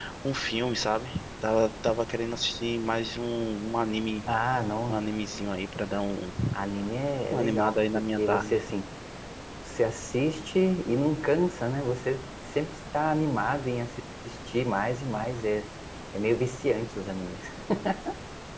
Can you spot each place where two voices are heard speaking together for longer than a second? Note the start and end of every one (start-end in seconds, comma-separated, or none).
7.3-8.6